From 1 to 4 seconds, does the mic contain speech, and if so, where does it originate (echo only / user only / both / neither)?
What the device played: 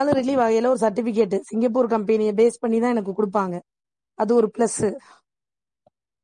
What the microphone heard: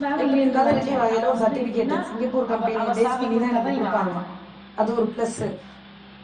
both